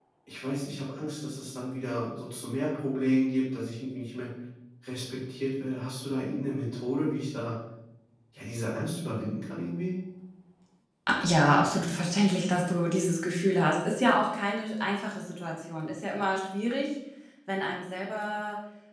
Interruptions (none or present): none